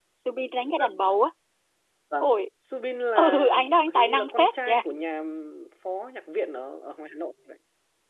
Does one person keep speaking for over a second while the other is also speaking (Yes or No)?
Yes